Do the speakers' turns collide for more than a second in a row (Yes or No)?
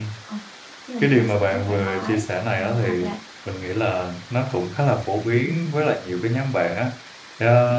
Yes